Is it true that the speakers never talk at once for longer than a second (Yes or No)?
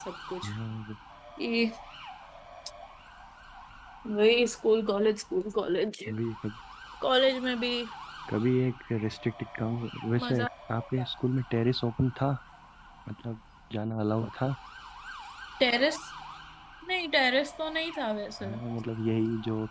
Yes